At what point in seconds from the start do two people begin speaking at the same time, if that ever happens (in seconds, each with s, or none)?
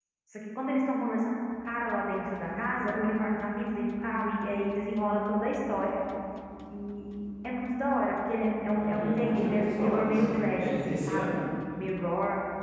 8.8 s